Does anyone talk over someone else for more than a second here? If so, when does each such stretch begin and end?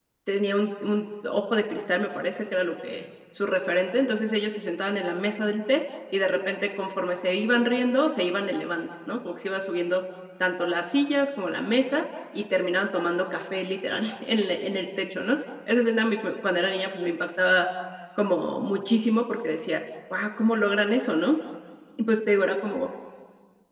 none

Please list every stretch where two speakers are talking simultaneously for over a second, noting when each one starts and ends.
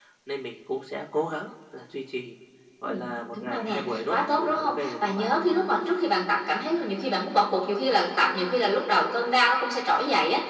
3.3-5.3

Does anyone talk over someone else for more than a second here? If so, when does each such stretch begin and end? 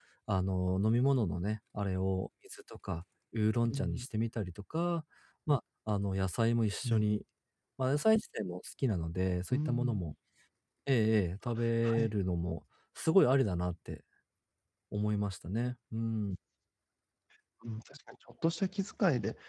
none

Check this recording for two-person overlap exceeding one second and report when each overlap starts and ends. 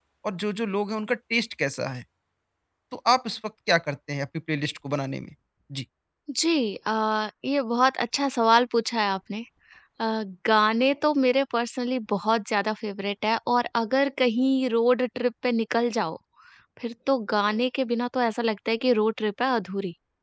none

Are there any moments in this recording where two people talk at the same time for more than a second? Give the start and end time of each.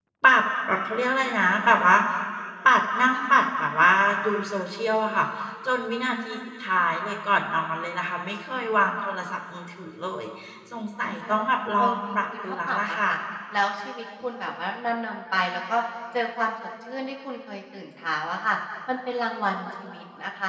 11.8-13.2

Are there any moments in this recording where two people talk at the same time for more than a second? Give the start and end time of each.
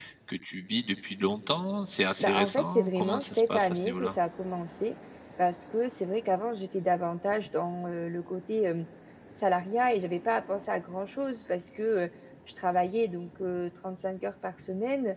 2.2-4.2

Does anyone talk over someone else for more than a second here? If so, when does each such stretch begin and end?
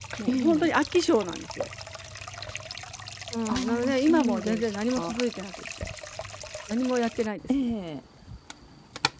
3.5-5.2

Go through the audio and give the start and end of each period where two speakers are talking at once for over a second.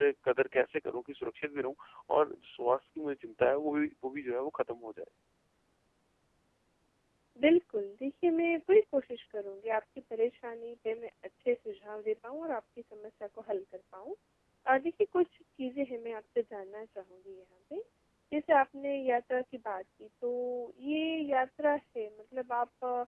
none

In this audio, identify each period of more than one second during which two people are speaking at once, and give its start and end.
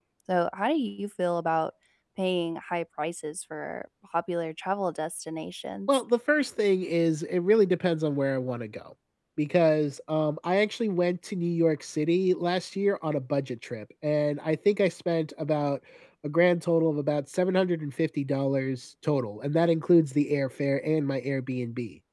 none

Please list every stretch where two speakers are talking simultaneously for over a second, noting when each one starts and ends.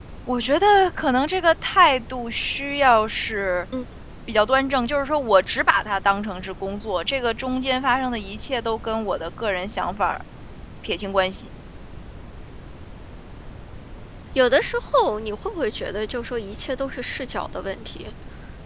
none

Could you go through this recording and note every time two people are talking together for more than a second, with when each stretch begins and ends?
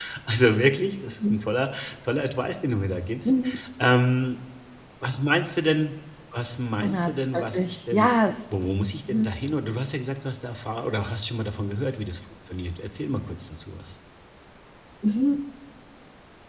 6.9-8.1

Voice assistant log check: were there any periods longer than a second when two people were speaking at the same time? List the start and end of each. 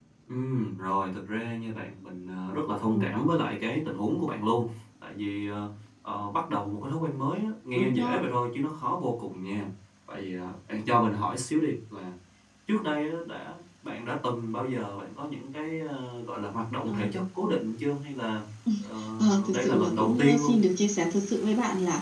19.2-20.6

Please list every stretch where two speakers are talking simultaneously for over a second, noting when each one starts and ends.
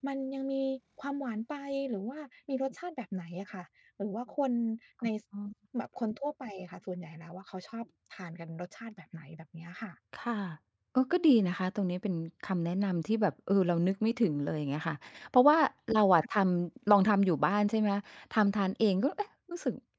none

